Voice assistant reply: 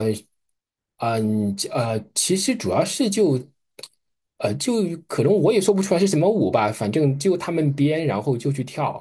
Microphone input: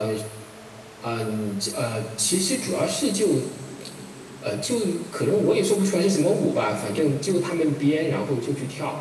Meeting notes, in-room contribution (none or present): none